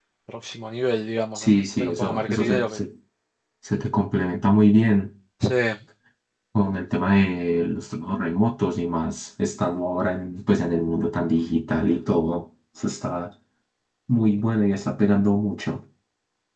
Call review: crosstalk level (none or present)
present